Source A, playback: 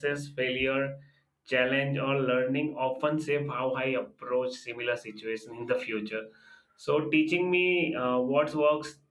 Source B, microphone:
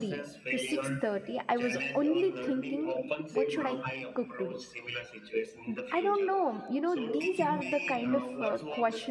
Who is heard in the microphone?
both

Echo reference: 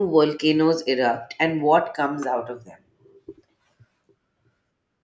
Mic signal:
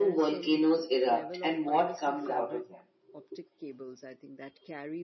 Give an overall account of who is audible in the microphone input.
both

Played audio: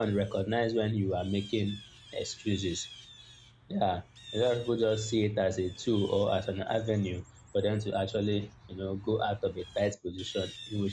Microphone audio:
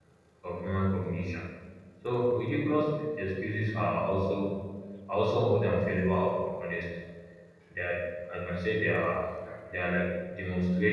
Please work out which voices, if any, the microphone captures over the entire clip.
user only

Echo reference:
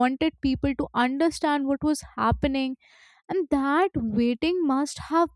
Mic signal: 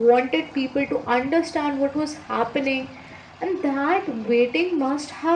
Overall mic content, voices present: echo only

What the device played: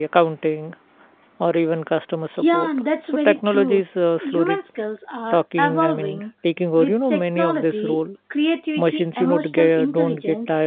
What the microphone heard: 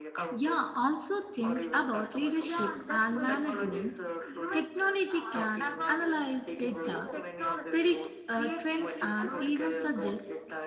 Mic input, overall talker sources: both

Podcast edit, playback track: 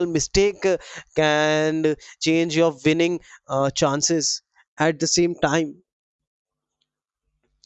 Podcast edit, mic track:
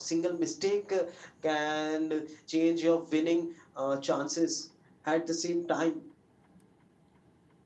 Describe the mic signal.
echo only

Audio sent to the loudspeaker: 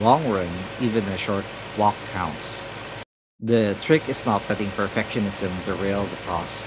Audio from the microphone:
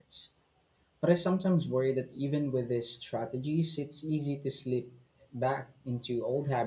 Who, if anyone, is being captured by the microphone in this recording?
user only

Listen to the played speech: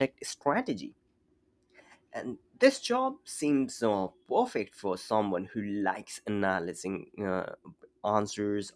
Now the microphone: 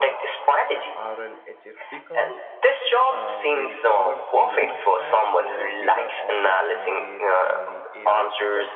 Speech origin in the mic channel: both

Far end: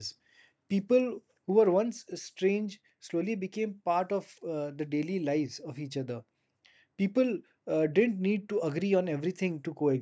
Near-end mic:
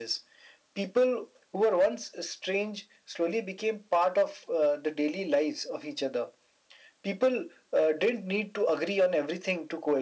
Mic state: echo only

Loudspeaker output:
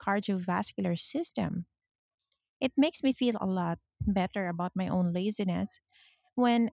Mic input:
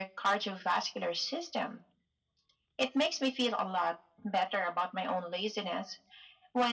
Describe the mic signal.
echo only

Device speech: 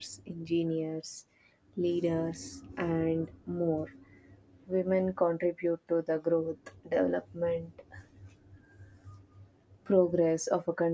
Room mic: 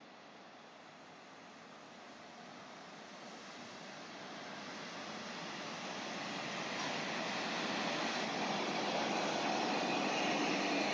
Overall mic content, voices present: neither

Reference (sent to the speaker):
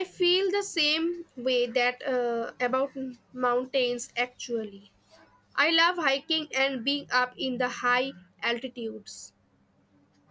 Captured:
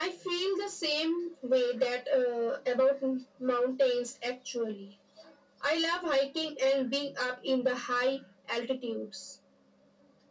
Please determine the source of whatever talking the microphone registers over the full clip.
echo only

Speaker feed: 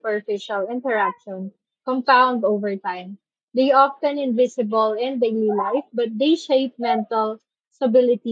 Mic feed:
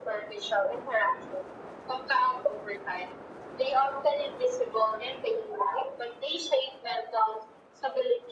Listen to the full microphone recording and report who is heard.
echo only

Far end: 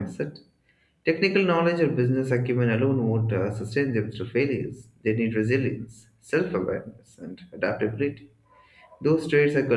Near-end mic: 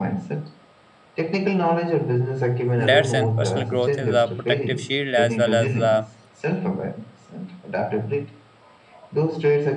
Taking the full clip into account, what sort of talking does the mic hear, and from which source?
both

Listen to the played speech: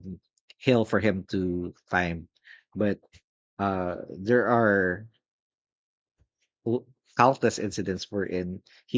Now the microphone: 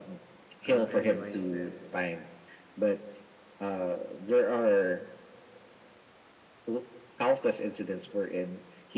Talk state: both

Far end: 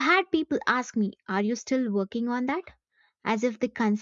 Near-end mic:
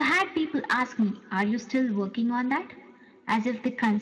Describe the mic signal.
echo only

